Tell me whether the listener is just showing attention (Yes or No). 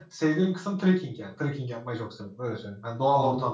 No